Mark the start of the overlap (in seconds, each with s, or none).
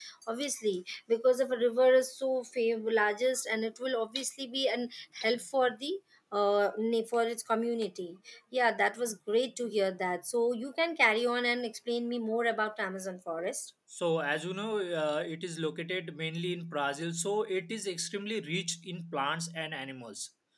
none